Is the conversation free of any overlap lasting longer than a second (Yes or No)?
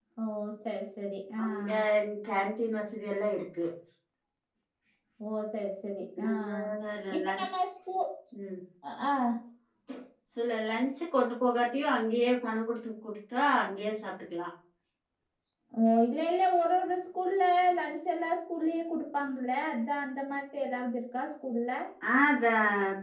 Yes